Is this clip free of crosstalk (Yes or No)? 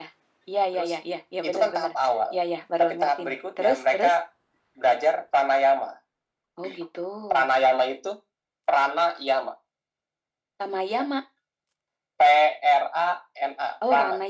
No